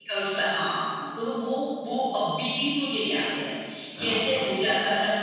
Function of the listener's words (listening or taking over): listening